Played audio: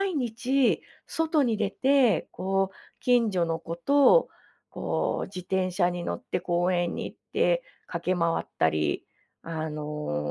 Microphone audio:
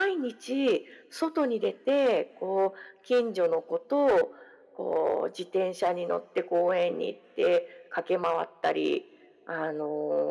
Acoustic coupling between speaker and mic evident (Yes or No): Yes